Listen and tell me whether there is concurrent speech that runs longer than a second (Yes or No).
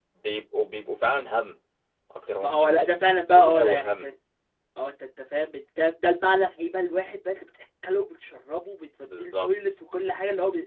Yes